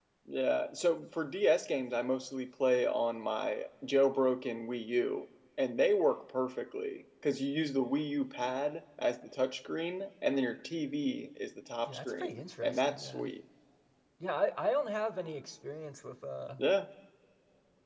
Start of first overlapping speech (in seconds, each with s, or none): 11.9 s